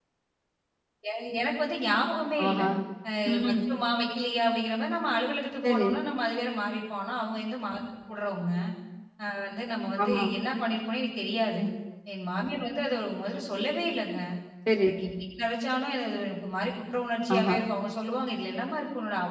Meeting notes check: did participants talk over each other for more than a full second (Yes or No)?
No